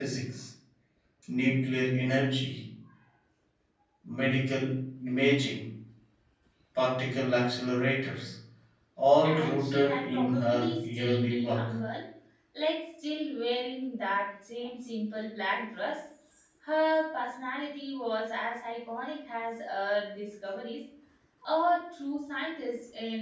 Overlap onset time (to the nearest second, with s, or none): 9 s